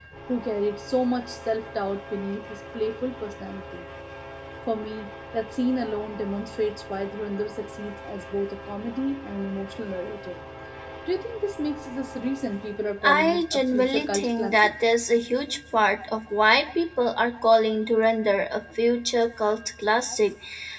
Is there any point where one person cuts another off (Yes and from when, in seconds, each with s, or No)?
Yes, from 13.0 s